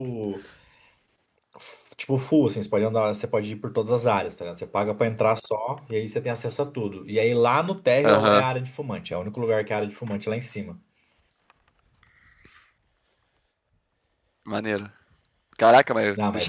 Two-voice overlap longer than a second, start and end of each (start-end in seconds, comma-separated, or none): none